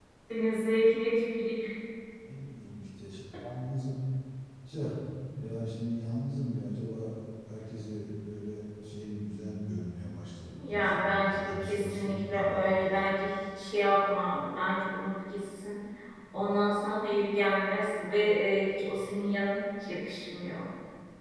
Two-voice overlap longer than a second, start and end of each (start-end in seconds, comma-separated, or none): 10.6-13.1